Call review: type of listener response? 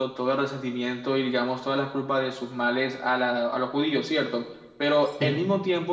listening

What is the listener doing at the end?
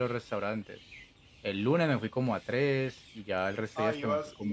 taking over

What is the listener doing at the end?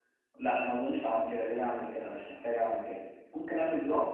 listening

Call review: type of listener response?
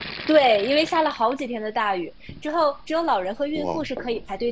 listening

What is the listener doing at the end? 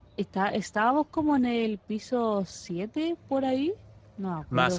taking over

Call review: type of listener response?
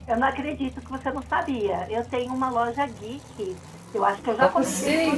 listening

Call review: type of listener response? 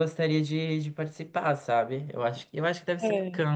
listening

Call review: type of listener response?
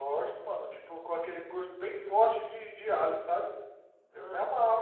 taking over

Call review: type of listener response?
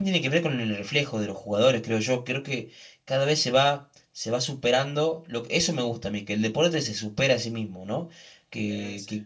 listening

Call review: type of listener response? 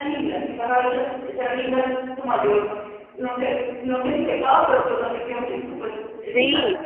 taking over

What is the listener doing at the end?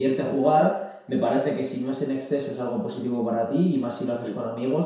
listening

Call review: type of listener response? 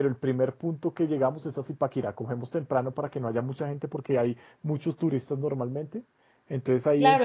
taking over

